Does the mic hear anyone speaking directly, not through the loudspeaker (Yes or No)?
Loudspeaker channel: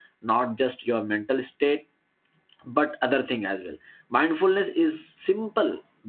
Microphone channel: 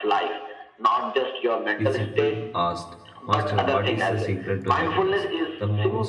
Yes